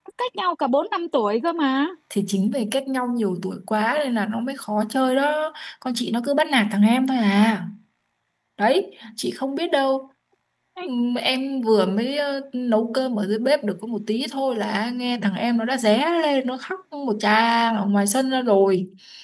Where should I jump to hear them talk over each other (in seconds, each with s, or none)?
none